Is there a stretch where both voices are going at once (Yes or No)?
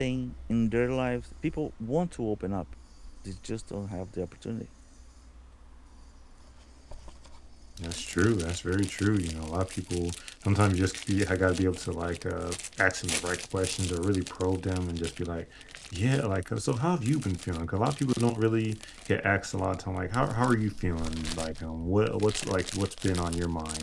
No